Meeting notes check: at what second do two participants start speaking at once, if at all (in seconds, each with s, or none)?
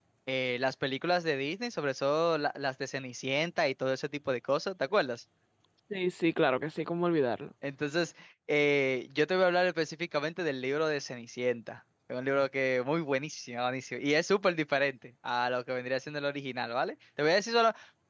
none